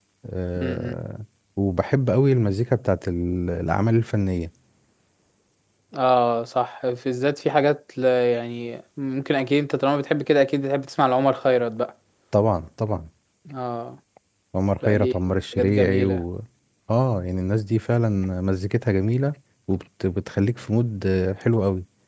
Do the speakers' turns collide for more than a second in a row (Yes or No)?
Yes